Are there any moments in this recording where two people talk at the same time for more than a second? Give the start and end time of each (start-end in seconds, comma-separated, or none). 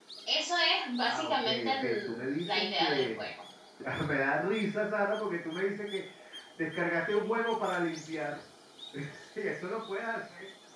1.0-3.2